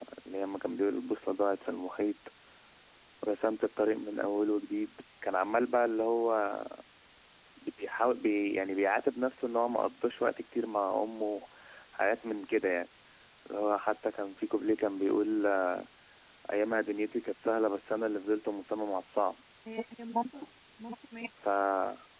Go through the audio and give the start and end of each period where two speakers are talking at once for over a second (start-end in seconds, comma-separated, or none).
none